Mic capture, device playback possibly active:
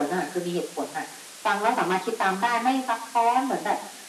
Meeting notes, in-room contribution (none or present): none